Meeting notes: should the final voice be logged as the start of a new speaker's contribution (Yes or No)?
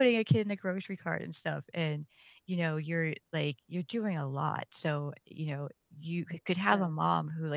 No